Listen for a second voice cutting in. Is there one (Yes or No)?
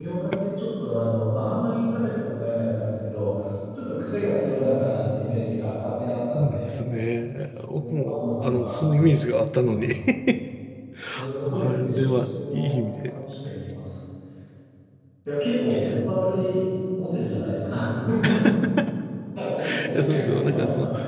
Yes